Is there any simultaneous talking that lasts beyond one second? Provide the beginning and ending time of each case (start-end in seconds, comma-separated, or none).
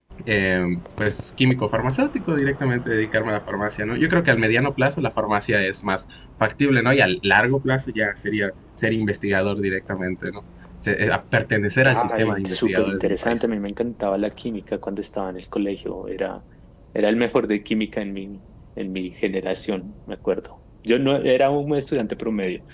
11.8-13.4